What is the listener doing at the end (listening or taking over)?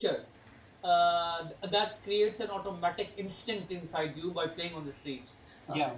listening